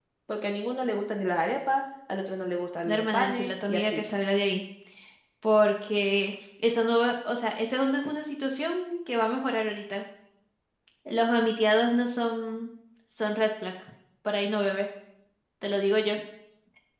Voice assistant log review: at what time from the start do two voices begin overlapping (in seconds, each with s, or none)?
2.9 s